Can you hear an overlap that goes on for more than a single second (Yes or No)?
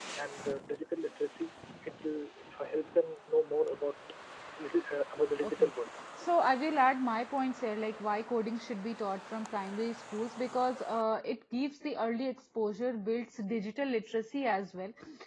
No